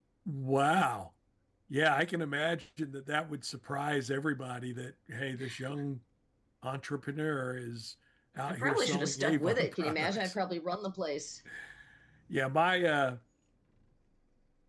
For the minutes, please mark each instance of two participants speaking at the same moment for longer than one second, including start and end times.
8.5-10.3

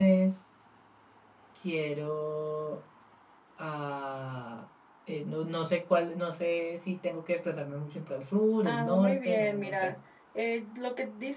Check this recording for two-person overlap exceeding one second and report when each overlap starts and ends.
8.6-9.9

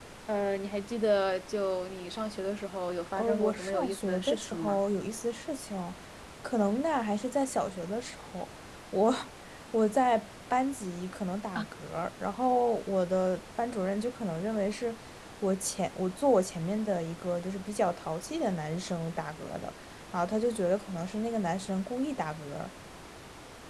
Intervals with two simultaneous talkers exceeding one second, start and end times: 3.1-4.8

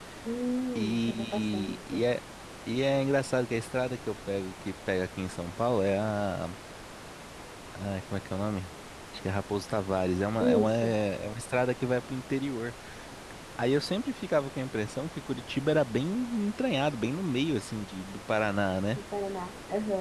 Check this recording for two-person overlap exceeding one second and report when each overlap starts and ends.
0.8-2.0

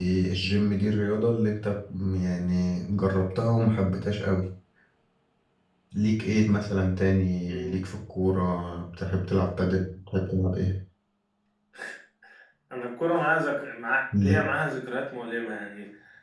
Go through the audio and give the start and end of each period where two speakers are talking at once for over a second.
none

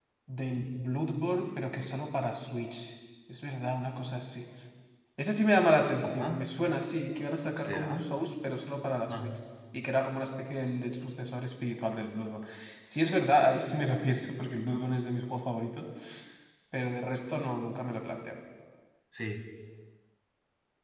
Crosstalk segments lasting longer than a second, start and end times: none

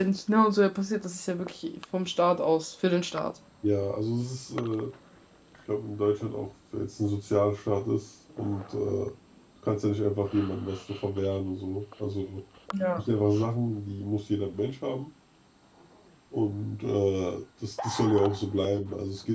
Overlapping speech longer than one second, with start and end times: none

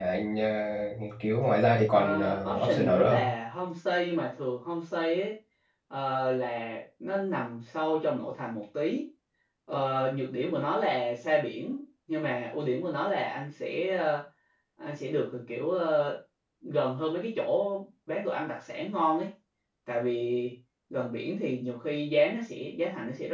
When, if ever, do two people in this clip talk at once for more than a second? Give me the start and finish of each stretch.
1.9-3.3

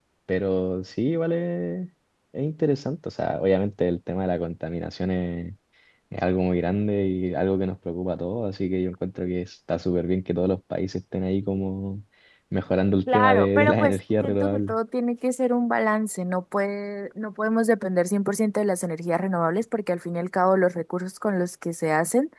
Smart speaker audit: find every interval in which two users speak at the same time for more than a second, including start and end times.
13.1-14.8

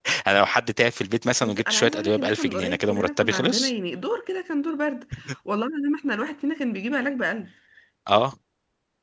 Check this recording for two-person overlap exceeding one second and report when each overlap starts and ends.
1.4-3.7

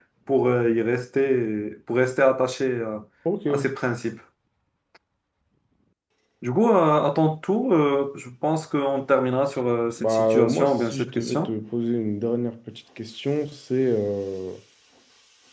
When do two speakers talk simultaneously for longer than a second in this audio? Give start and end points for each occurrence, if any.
10.0-11.5

